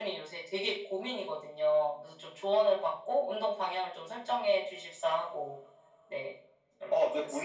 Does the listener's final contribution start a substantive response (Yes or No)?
Yes